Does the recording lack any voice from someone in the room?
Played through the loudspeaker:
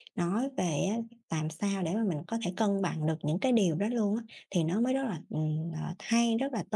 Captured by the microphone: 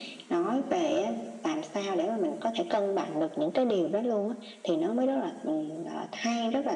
Yes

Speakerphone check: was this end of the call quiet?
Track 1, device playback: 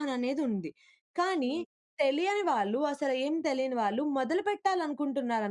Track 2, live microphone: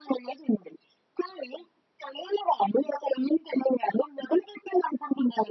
Yes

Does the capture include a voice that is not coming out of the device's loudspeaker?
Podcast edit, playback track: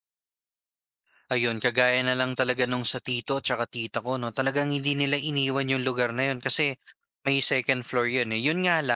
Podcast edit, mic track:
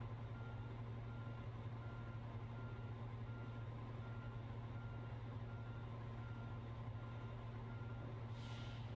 No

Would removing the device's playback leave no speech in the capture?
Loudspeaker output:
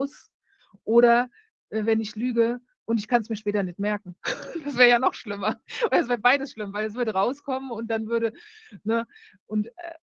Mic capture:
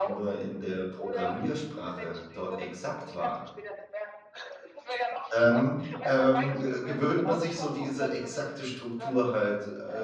No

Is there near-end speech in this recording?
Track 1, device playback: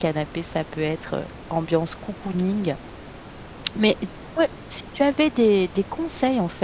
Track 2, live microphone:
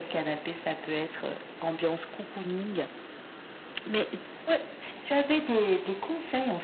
No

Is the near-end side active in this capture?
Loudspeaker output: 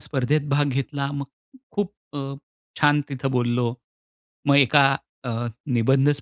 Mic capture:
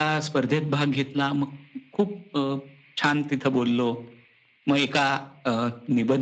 No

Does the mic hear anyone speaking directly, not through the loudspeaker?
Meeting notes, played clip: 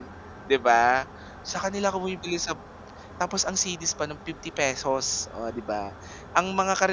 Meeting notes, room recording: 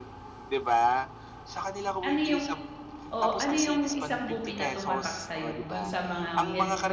Yes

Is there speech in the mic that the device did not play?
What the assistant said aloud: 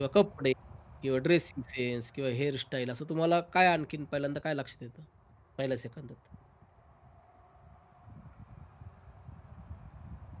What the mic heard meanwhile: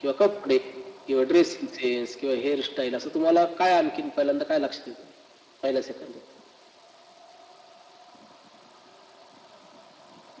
No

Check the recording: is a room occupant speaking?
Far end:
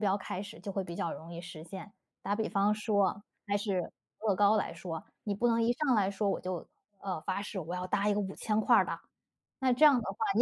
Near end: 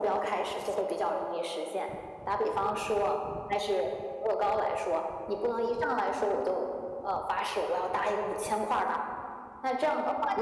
No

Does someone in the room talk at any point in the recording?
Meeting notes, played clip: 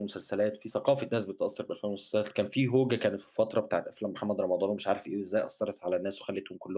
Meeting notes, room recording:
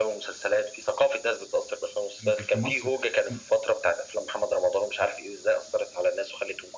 Yes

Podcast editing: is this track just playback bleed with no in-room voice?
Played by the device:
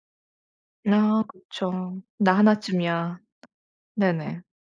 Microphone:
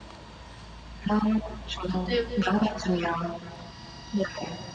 No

